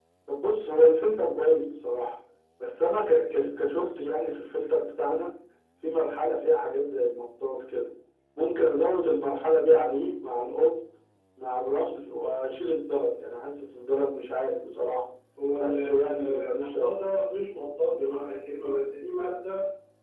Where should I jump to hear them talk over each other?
15.6 s

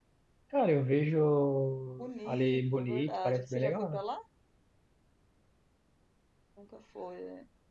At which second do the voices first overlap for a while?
2.0 s

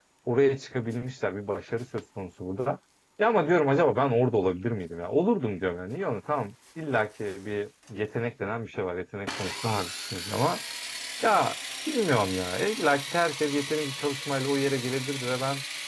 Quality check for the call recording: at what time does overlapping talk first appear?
none

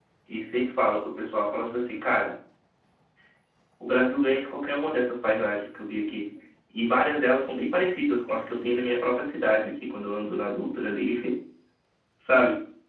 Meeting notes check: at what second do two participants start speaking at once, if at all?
none

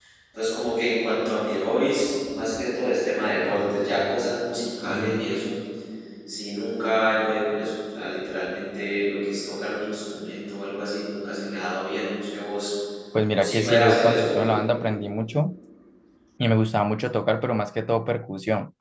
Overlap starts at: 13.3 s

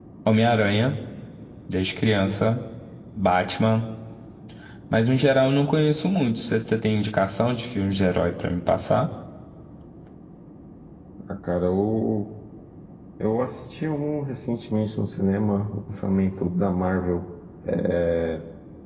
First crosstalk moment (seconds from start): none

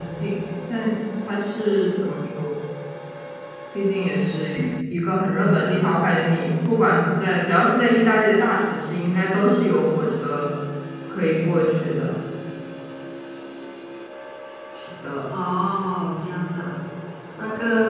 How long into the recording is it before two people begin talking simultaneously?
none

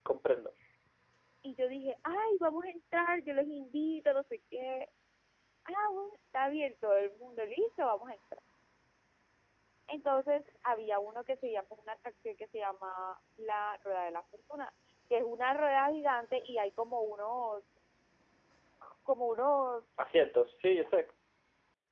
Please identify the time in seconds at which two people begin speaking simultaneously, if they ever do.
none

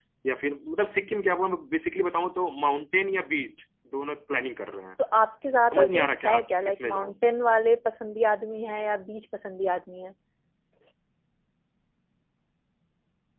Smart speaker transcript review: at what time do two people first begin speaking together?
5.7 s

